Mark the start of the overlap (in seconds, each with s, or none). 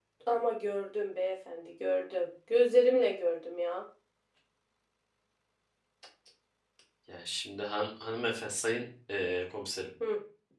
none